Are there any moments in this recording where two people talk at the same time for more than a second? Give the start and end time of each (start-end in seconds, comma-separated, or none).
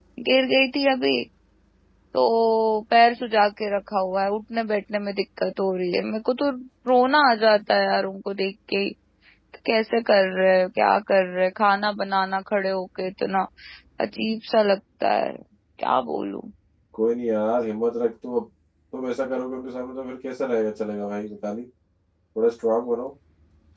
none